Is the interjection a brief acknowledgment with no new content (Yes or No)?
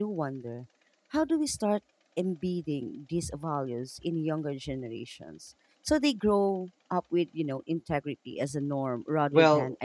No